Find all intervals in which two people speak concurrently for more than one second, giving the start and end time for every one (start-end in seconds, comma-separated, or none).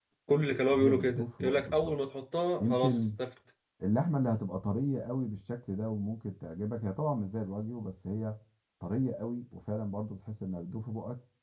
0.7-1.9